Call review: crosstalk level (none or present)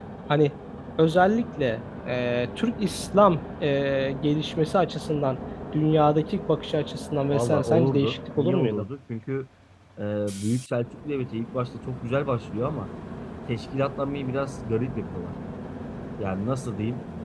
present